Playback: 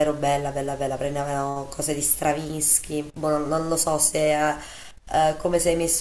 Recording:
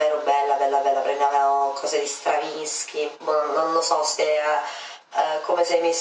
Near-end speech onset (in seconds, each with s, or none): none